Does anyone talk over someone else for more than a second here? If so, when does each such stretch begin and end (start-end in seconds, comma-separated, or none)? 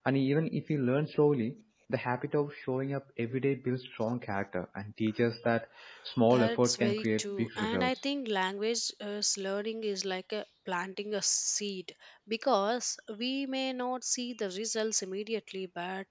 6.3-8.0